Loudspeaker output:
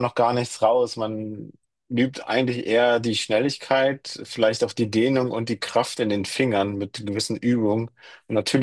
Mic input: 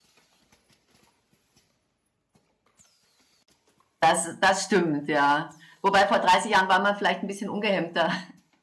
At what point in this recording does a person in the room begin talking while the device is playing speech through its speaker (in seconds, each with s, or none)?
4.0 s